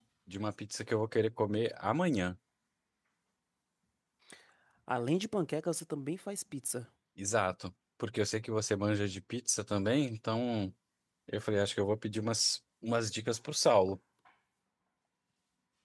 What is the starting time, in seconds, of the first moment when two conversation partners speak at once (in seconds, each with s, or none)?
none